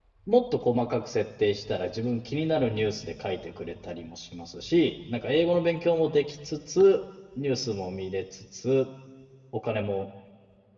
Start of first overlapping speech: none

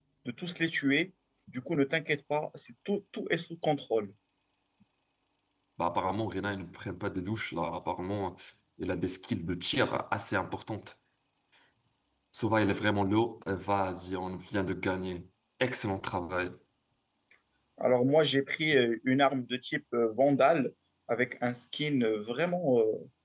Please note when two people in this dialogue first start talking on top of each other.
none

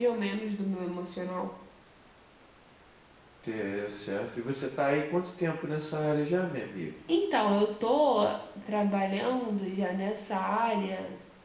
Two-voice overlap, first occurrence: none

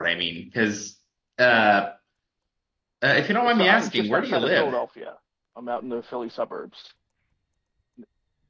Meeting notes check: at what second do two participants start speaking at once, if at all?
3.5 s

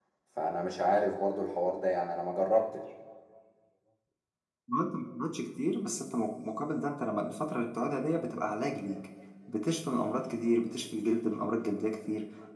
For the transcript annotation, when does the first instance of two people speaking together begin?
none

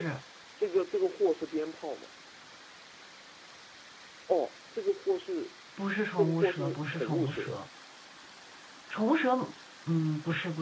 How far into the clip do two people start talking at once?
6.2 s

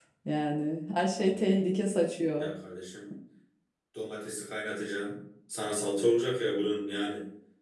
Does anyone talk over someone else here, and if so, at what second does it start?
1.2 s

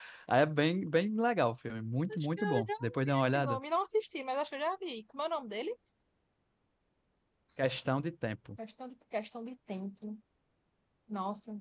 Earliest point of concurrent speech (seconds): 2.1 s

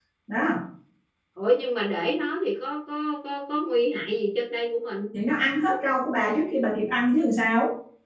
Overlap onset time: none

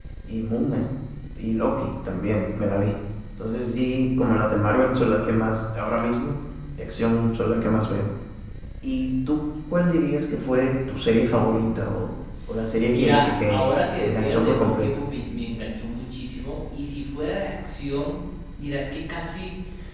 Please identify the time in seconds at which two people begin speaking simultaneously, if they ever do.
12.9 s

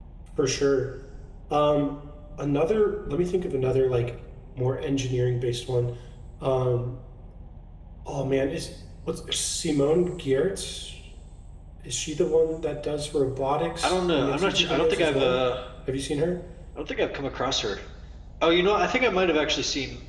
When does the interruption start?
13.8 s

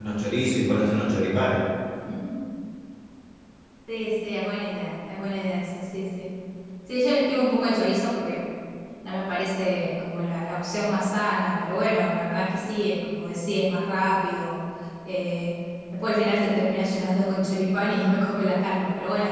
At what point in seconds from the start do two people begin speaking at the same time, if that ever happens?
none

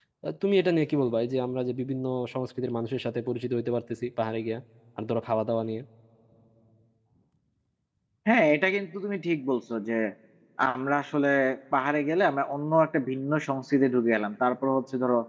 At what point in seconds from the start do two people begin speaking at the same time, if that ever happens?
none

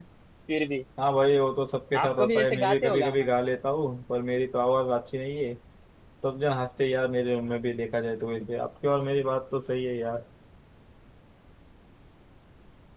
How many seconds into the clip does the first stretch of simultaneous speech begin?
1.9 s

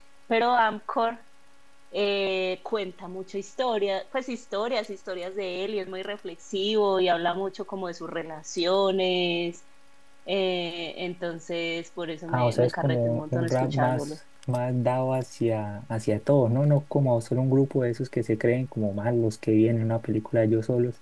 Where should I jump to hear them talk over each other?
12.3 s

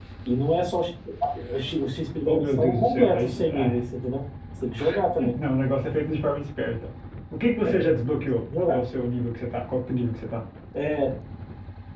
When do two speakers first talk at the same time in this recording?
2.2 s

